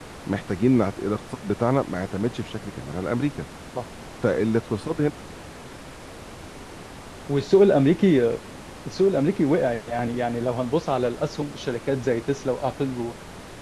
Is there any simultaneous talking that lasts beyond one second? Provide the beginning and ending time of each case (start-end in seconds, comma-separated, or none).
none